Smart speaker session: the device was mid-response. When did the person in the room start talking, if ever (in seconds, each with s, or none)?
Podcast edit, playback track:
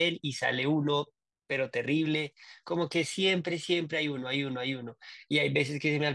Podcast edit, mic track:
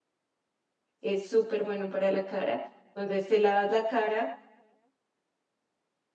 1.0 s